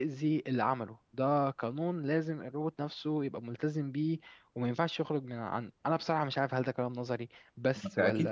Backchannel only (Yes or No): No